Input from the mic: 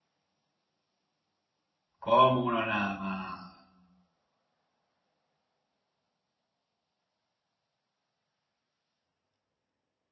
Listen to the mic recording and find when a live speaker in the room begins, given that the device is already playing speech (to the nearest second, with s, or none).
2 s